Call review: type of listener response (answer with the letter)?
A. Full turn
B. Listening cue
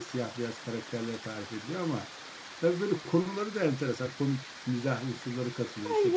A